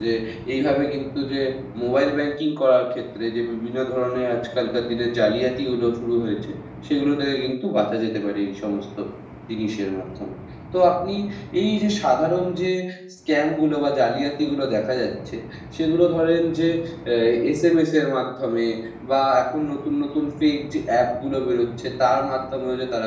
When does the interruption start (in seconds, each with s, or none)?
none